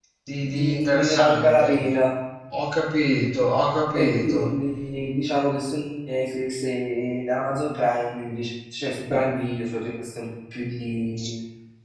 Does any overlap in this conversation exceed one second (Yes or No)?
Yes